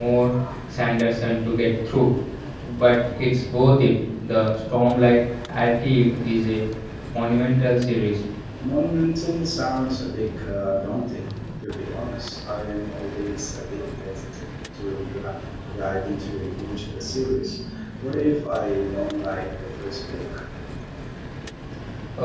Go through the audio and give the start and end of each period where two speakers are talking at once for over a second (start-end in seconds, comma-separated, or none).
none